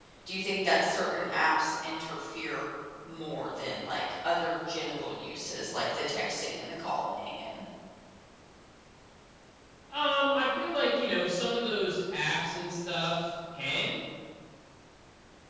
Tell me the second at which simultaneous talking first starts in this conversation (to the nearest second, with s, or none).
none